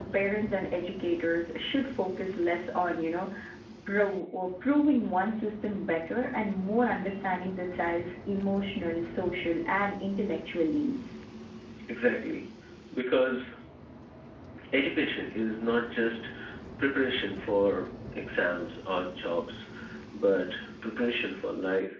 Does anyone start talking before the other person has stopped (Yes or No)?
No